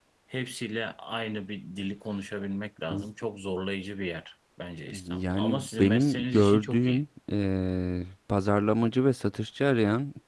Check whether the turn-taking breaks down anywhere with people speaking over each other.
Yes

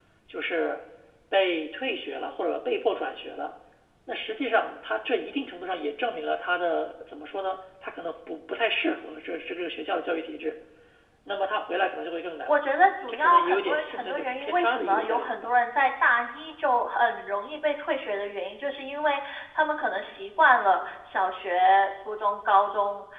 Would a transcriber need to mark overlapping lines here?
Yes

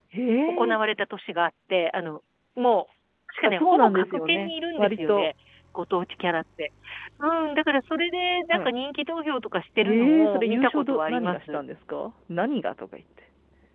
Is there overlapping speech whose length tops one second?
Yes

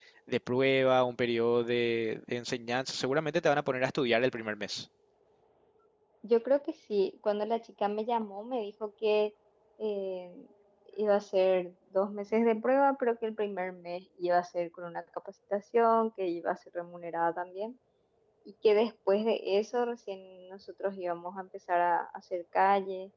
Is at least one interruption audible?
No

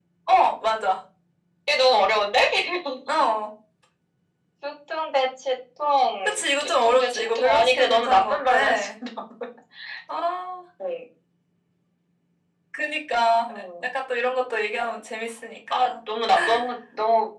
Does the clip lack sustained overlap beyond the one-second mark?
No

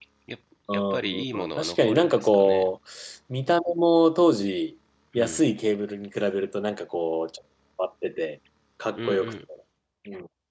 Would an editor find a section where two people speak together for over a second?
Yes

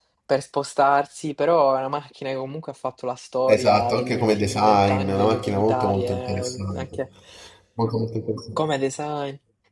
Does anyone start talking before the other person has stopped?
Yes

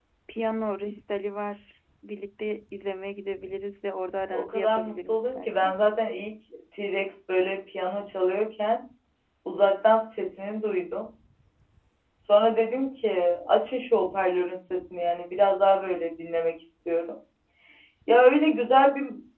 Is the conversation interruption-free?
No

